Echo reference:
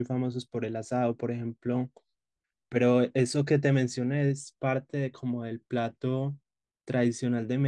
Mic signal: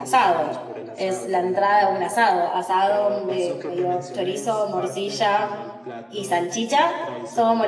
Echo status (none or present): present